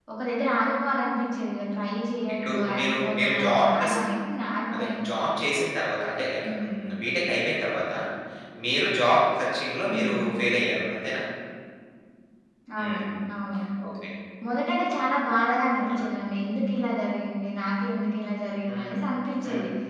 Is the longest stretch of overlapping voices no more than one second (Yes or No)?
No